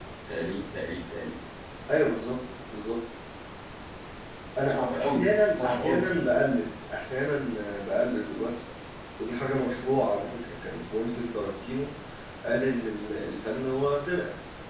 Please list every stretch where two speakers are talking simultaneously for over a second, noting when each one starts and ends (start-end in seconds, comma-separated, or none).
4.7-6.1